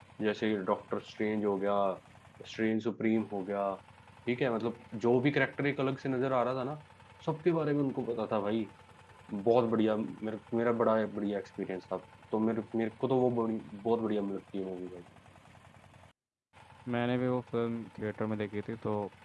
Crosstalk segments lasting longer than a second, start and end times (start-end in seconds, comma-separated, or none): none